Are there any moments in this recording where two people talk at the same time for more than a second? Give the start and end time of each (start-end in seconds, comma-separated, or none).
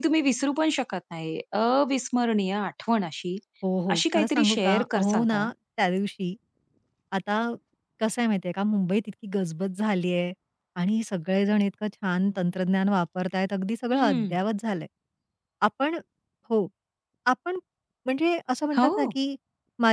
3.9-5.4